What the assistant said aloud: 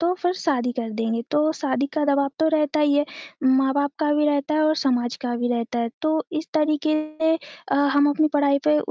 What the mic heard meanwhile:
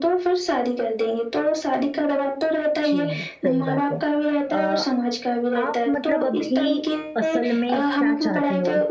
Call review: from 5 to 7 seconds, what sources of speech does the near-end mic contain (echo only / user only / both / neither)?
both